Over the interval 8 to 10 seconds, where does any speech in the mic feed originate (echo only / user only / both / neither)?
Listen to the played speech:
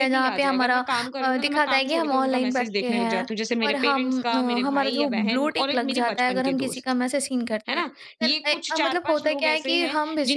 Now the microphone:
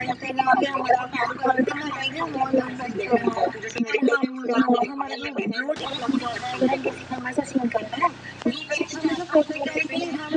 echo only